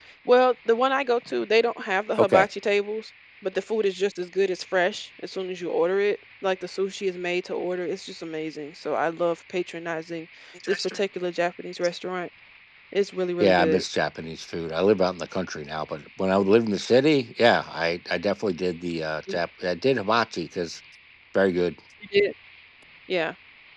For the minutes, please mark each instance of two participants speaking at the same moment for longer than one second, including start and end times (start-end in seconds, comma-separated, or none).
none